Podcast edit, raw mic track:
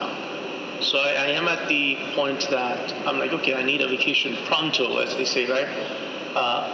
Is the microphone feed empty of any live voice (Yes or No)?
Yes